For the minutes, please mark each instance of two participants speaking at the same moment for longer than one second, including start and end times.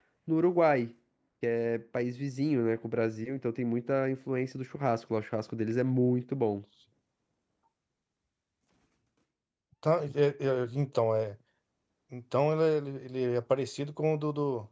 none

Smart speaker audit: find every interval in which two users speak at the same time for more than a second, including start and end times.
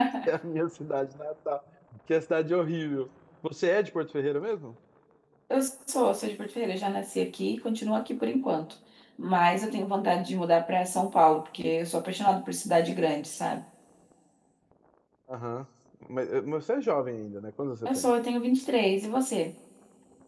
none

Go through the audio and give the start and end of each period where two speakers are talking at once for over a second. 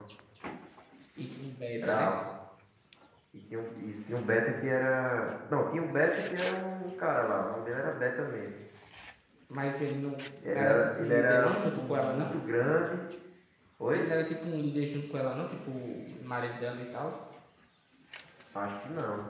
10.4-12.3

